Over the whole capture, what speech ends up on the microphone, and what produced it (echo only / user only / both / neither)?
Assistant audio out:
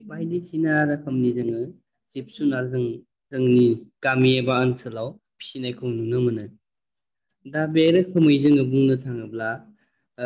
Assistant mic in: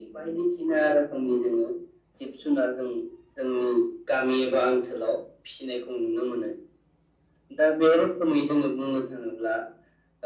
echo only